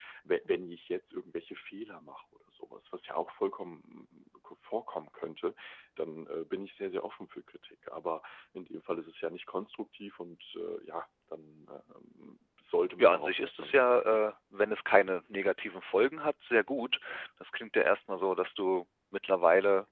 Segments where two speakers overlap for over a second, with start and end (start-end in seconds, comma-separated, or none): 13.0-14.2